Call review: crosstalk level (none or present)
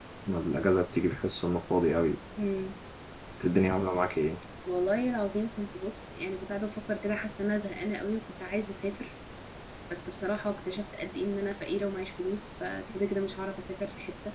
none